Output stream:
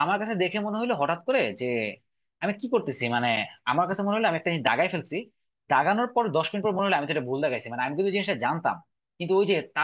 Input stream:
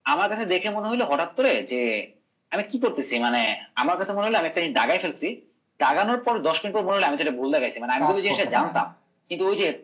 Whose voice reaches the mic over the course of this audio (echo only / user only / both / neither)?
both